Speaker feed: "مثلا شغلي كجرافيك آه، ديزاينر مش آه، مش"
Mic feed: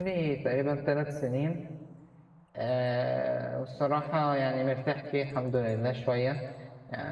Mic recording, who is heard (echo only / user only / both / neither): user only